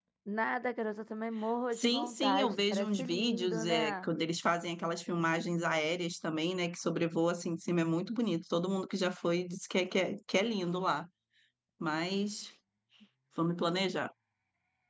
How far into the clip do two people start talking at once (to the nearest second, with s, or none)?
2 s